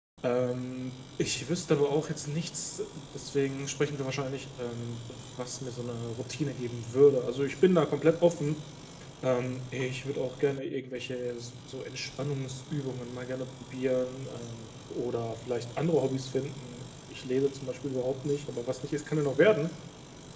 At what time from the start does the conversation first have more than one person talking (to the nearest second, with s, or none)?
none